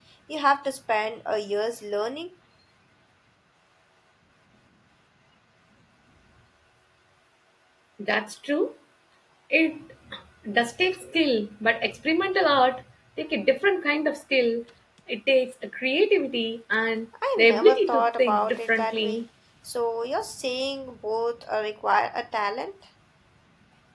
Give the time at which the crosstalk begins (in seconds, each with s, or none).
17.2 s